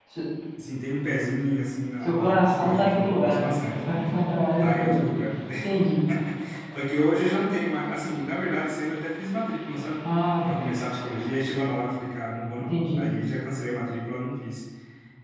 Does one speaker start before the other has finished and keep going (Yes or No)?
Yes